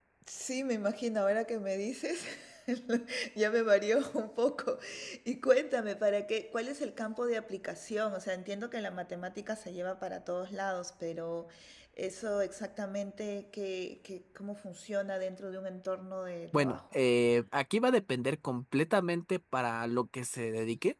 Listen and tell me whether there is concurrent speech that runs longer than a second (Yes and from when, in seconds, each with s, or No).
No